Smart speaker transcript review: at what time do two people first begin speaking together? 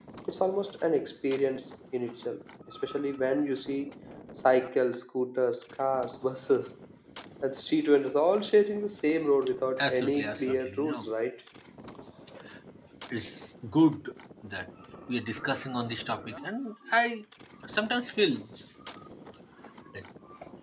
10 s

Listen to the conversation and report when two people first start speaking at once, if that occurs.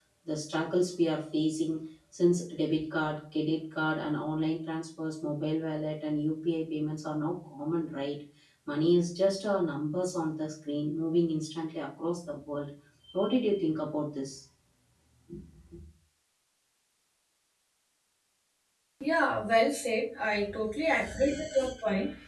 none

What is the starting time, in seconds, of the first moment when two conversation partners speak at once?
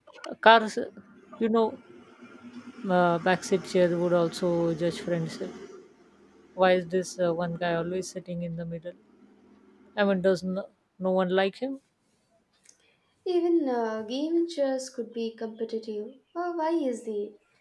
none

